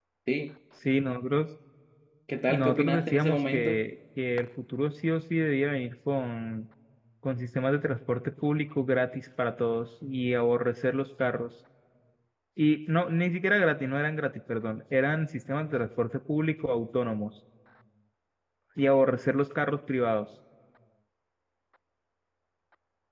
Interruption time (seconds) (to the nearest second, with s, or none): 2 s